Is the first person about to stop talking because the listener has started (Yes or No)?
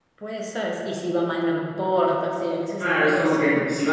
Yes